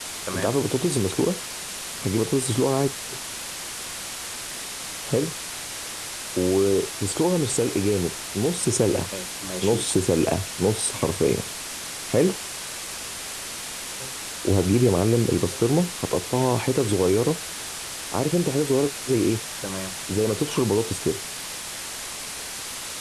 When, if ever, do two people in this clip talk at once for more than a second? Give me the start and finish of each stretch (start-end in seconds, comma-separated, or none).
none